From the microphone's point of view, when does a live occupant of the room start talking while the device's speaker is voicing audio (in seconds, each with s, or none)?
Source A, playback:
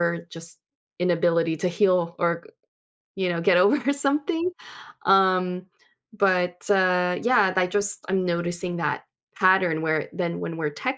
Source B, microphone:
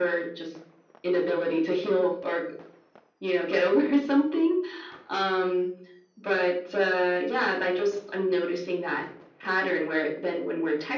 none